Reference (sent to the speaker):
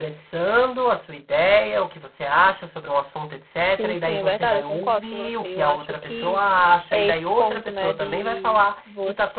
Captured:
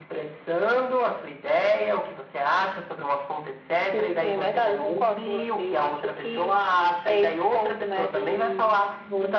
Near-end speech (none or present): none